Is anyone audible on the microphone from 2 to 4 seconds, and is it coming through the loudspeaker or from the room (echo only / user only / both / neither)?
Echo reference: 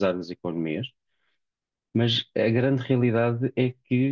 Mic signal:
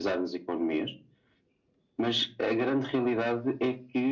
echo only